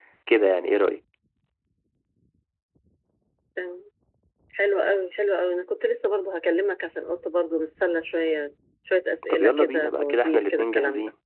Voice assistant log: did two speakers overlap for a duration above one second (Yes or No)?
Yes